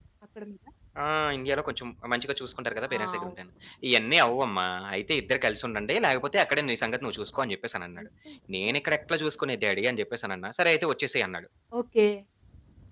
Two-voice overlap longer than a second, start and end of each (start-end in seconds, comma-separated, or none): none